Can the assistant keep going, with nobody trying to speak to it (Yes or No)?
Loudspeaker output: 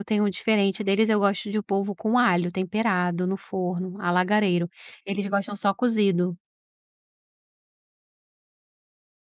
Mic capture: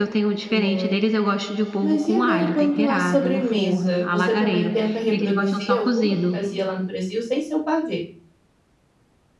No